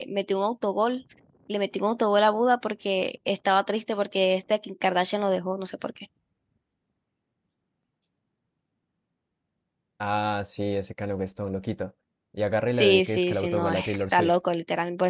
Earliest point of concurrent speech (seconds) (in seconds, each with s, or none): 12.7 s